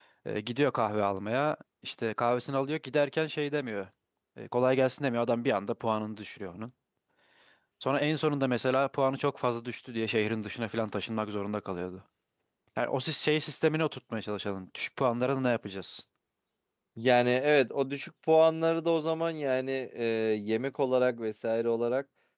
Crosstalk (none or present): none